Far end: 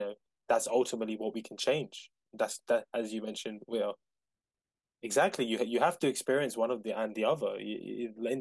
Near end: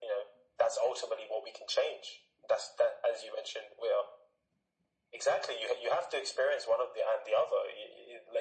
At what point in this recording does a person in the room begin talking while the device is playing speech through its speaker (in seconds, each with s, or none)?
none